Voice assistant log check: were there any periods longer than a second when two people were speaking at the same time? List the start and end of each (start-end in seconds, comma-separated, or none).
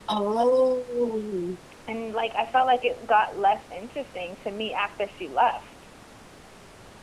none